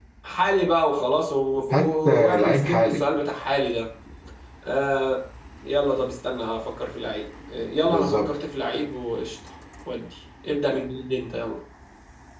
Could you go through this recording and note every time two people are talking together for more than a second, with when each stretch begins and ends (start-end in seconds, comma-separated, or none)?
1.7-3.0